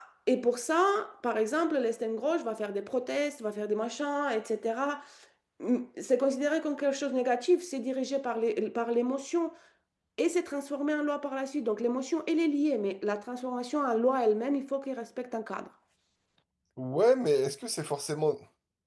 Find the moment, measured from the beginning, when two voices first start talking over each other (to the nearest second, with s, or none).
none